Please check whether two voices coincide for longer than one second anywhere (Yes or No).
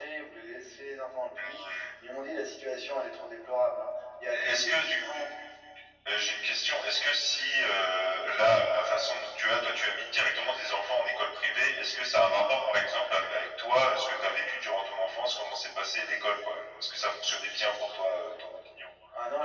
No